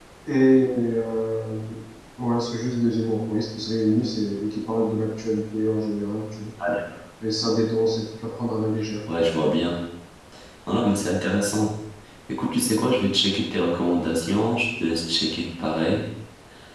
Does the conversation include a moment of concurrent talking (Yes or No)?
No